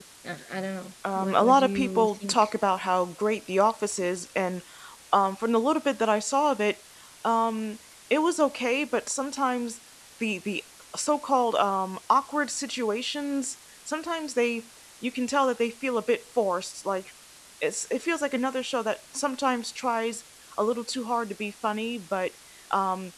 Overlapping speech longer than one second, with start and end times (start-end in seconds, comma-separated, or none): 1.1-2.4